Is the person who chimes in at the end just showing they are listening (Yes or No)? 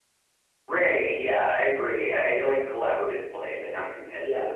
No